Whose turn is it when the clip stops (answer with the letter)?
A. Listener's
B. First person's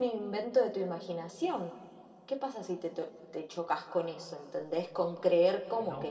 A